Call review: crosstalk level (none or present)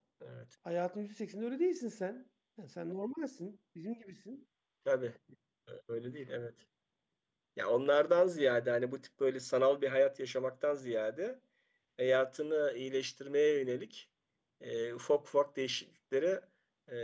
none